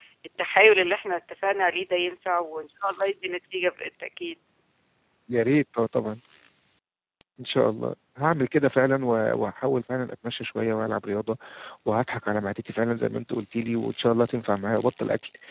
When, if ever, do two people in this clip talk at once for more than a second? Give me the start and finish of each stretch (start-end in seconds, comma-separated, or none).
none